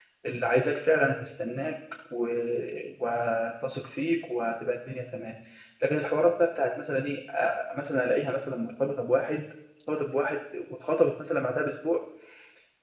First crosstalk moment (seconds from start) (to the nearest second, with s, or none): none